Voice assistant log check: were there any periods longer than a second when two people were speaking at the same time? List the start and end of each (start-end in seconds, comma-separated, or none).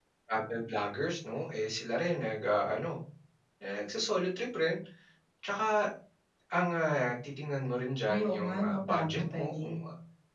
8.1-9.8